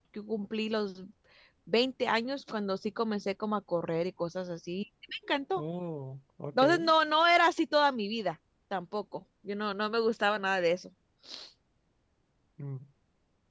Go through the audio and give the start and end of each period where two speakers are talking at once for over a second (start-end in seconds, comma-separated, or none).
none